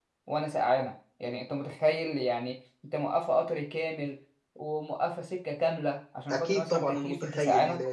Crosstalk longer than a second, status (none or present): present